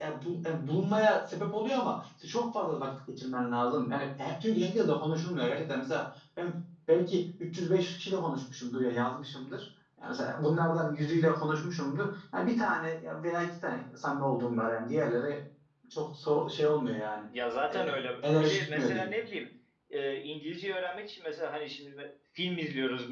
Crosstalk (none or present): present